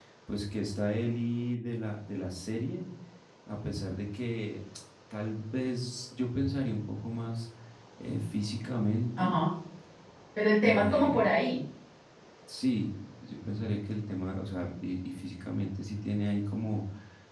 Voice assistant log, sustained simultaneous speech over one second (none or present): none